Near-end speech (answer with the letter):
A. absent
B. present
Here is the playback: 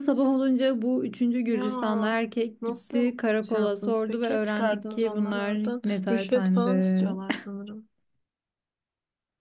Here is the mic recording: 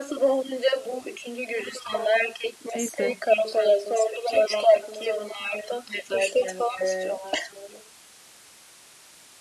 B